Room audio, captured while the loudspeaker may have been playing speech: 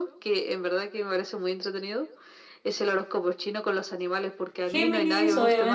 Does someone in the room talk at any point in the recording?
Yes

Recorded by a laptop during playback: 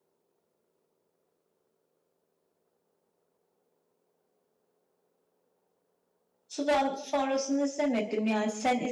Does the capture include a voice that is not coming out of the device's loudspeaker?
Yes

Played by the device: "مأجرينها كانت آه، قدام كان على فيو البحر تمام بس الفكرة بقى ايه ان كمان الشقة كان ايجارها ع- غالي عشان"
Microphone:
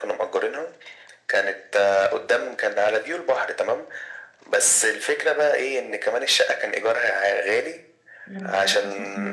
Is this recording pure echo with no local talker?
No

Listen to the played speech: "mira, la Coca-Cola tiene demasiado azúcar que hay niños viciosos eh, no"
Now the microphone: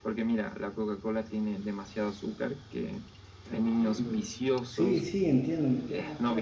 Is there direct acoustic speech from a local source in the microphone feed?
Yes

